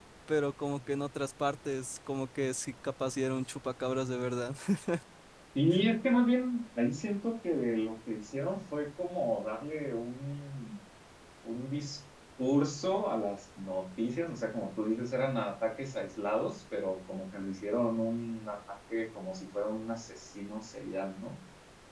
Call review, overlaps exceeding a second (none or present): none